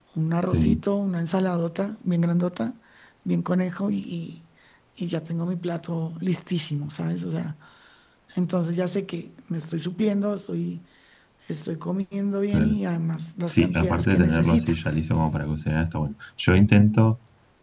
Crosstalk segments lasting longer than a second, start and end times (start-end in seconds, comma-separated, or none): 13.5-14.7